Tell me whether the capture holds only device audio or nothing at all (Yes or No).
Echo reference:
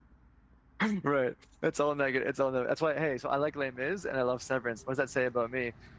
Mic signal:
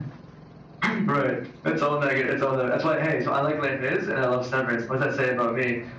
Yes